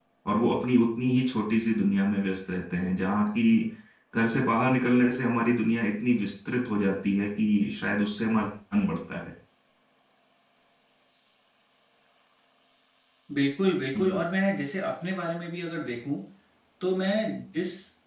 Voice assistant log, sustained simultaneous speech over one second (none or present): none